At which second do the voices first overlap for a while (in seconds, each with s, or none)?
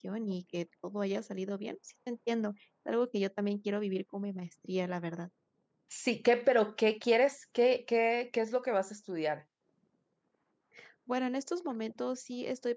none